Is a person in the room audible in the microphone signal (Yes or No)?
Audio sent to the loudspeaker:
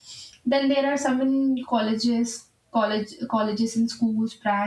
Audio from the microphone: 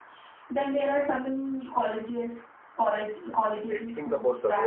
Yes